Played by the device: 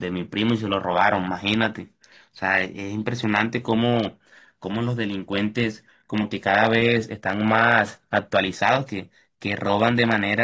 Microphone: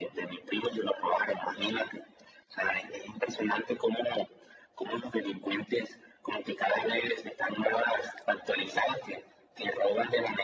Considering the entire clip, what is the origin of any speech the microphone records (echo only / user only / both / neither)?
echo only